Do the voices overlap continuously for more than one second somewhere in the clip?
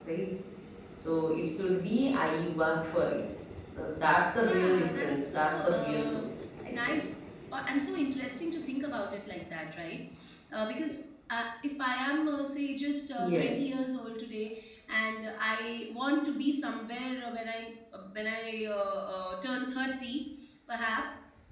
Yes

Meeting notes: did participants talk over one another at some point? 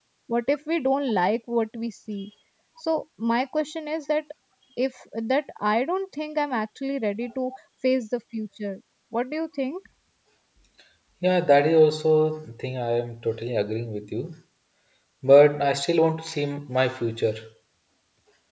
No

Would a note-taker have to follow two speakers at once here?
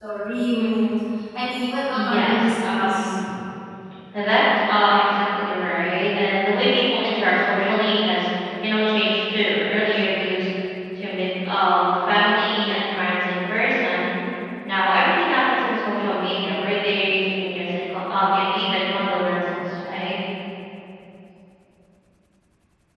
Yes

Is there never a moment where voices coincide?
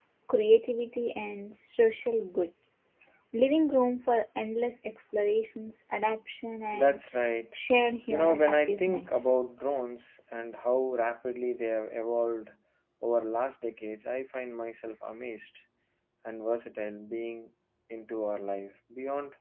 No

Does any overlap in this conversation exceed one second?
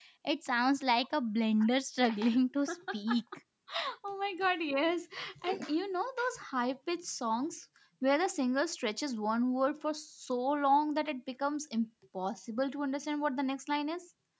No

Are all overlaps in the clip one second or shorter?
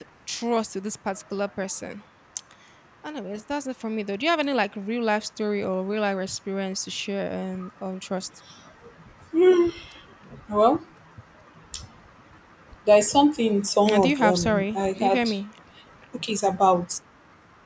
No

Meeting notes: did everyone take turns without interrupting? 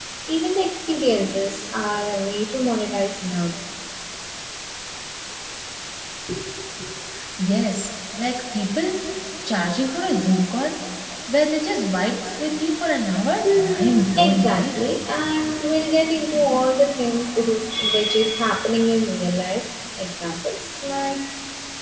No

